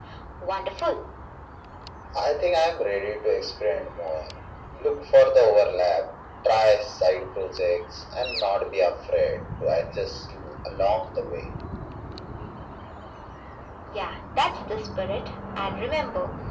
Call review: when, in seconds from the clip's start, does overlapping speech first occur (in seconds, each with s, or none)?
none